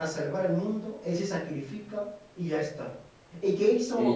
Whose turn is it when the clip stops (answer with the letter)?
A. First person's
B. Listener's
A